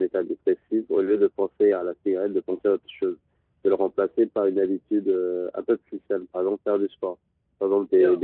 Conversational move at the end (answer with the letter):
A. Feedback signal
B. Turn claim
B